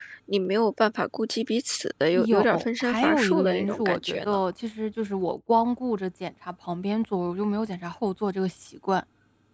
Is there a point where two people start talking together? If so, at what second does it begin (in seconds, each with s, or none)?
2.1 s